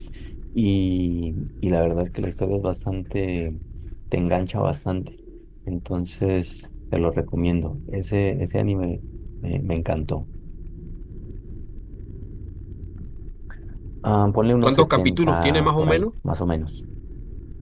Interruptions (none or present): present